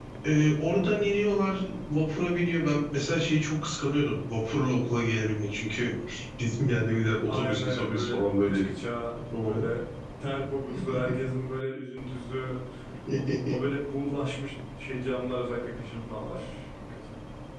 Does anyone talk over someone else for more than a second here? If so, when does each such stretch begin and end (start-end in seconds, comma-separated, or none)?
7.3-8.6